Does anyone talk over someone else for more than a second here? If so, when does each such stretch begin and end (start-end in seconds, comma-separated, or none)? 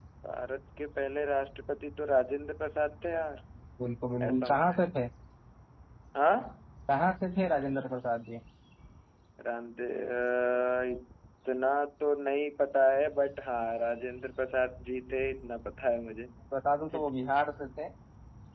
none